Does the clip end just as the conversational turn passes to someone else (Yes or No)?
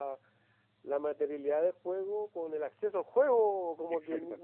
No